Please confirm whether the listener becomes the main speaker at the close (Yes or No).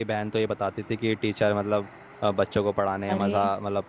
No